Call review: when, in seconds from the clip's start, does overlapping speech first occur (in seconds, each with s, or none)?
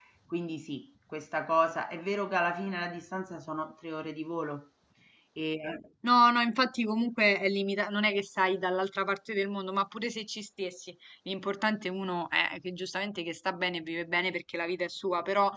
none